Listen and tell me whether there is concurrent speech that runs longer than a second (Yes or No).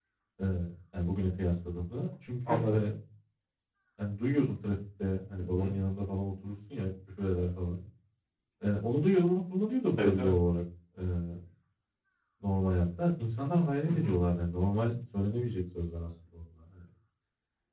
No